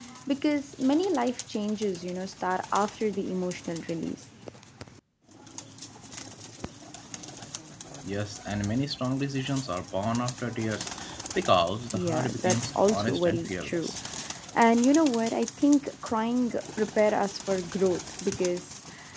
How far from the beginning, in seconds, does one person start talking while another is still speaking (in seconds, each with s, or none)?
11.9 s